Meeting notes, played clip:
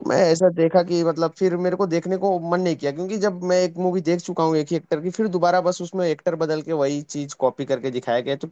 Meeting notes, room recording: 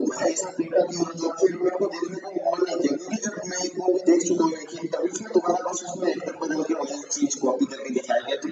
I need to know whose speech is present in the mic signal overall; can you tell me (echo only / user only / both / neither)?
echo only